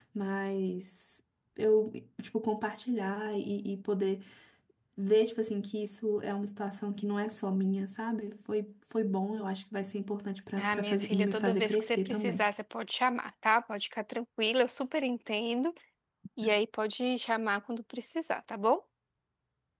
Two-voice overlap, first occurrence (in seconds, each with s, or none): 10.6 s